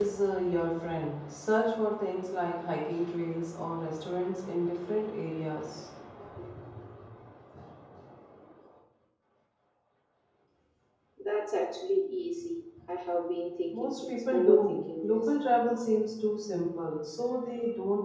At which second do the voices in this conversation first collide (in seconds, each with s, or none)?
13.7 s